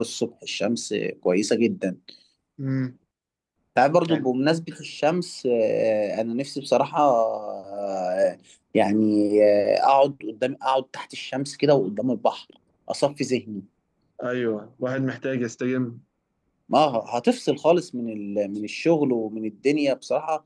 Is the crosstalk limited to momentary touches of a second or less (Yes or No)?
Yes